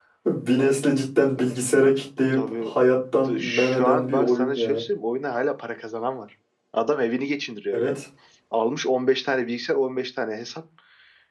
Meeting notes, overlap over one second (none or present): present